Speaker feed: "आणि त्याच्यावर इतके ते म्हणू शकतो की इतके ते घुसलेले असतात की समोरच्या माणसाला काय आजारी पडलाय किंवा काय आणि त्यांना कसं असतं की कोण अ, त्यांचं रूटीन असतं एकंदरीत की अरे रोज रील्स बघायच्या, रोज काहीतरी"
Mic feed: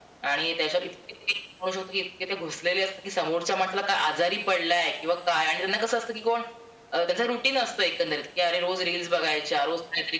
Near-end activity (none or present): none